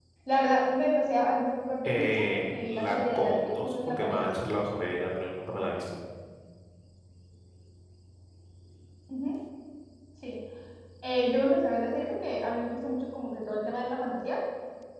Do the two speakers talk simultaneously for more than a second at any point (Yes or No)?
Yes